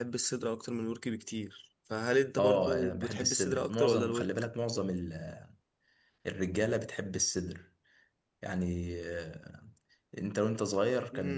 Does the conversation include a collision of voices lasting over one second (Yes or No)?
Yes